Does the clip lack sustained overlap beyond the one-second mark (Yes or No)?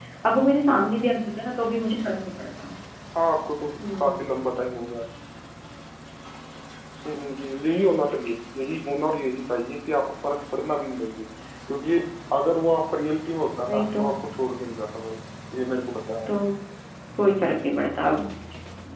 Yes